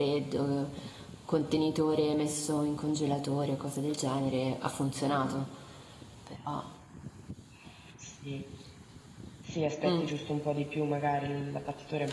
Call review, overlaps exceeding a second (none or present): none